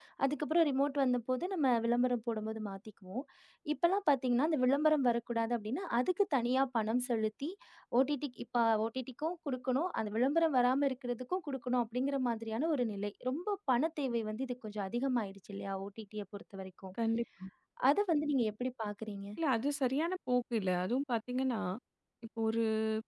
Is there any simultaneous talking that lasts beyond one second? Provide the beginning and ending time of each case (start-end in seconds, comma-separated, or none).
none